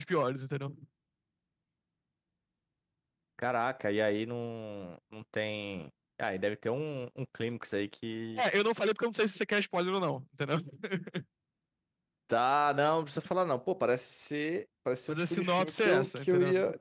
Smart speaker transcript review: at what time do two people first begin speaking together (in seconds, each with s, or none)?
15.1 s